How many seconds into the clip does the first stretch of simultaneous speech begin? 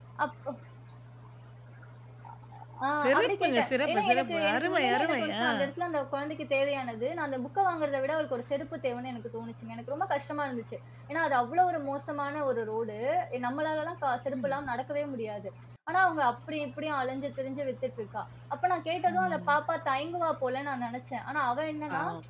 3.2 s

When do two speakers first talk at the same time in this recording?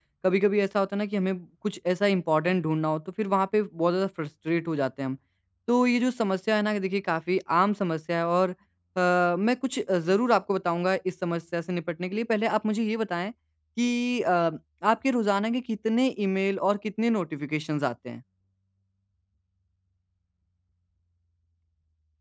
none

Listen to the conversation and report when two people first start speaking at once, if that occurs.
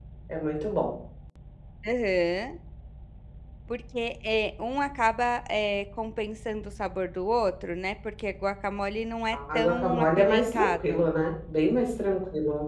9.3 s

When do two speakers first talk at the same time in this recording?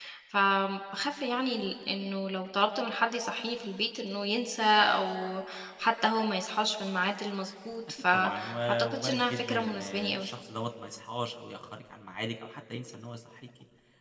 8.1 s

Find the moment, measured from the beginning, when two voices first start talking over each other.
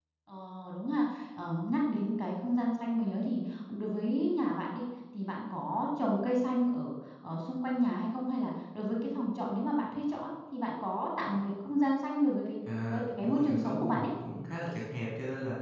12.7 s

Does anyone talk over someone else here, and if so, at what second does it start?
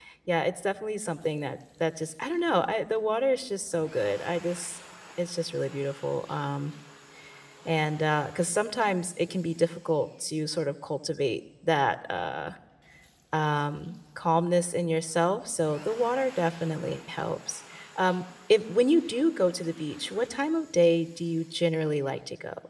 none

